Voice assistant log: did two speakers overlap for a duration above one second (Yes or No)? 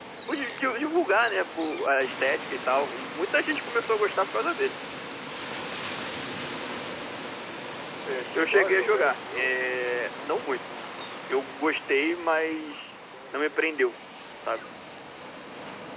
Yes